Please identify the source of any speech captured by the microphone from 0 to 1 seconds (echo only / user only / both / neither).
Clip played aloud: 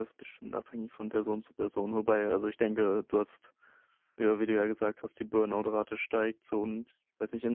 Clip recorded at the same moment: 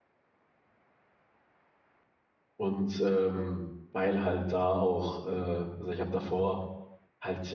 neither